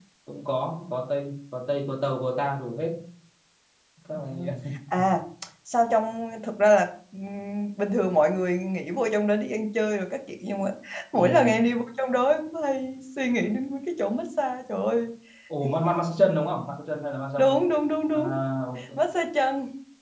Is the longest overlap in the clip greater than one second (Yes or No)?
No